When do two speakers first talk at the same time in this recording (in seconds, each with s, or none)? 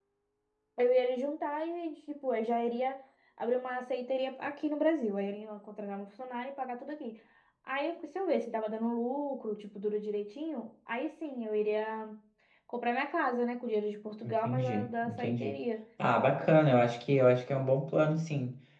14.2 s